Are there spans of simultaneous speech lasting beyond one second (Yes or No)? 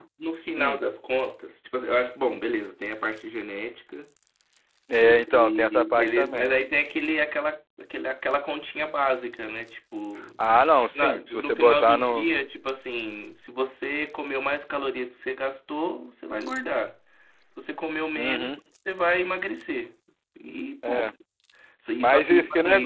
Yes